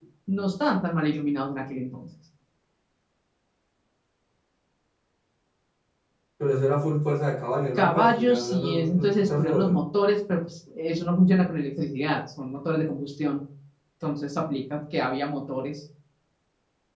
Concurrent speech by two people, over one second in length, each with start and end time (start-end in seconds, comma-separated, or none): 7.8-9.8